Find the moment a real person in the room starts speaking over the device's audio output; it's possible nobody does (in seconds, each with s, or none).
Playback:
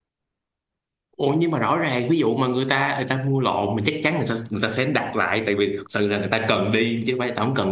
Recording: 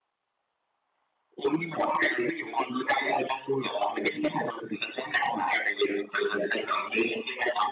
none